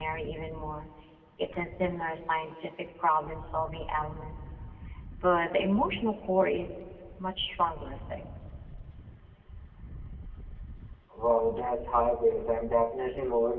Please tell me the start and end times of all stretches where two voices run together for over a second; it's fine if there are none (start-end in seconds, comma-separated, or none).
none